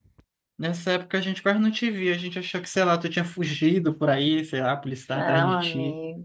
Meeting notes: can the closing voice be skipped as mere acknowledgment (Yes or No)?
No